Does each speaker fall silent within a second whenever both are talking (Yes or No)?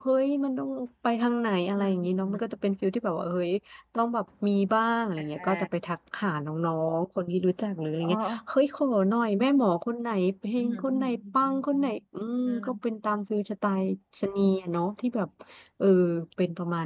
No